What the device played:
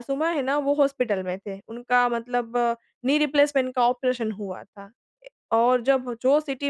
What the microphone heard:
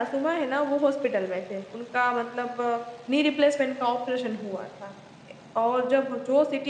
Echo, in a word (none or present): present